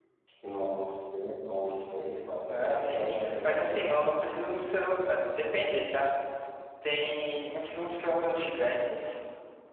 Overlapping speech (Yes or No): Yes